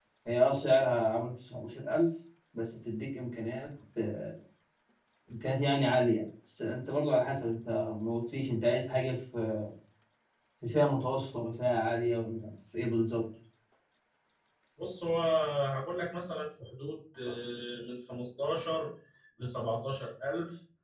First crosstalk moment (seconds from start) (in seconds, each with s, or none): none